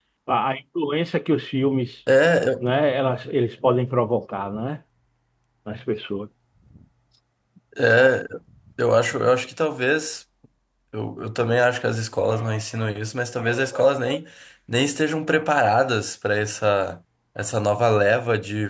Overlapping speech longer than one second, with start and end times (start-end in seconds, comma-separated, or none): none